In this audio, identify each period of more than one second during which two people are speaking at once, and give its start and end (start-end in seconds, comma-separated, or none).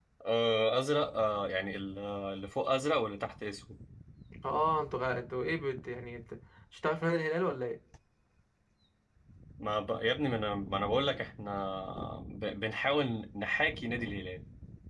none